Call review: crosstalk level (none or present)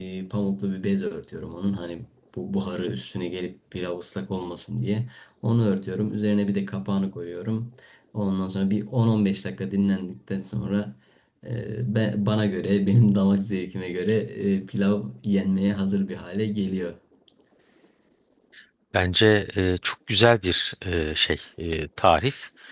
none